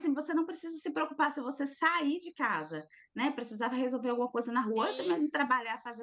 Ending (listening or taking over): listening